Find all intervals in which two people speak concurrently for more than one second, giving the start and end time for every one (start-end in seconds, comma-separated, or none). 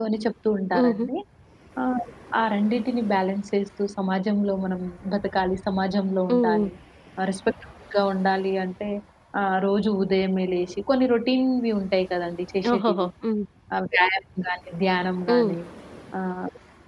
none